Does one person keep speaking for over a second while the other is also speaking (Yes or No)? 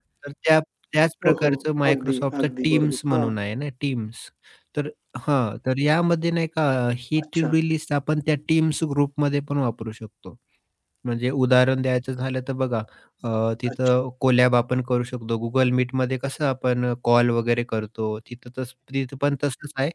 Yes